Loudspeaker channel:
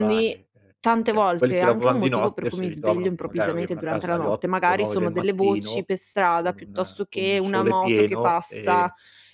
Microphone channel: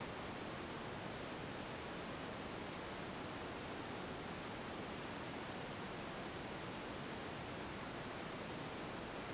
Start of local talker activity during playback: none

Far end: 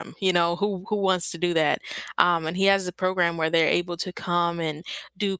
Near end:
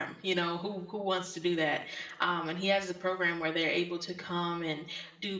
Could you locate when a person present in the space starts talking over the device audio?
none

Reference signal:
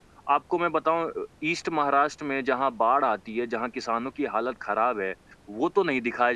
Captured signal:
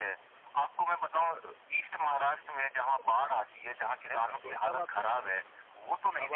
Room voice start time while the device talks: 4.1 s

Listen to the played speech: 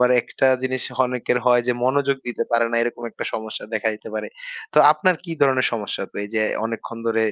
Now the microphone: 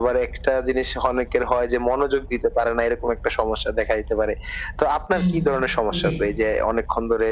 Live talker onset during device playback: 5.1 s

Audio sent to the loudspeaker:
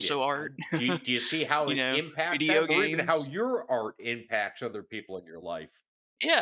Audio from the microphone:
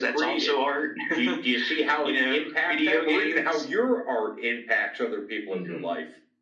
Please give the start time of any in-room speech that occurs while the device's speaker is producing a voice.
5.5 s

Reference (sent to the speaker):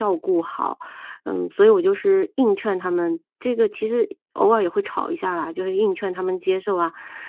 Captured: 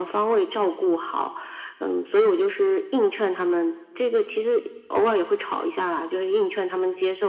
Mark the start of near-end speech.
none

